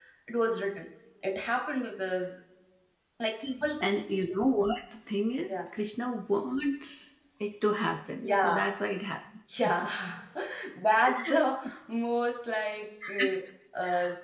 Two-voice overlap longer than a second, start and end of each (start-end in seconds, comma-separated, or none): none